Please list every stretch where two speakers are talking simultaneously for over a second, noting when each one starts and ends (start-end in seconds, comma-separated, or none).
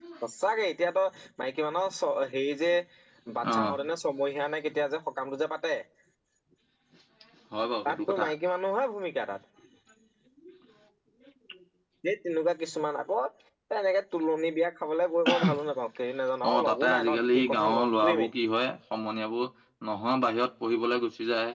16.5-18.3